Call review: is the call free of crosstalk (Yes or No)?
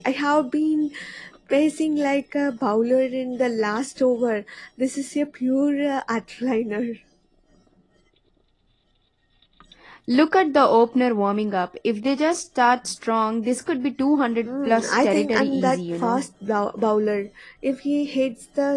No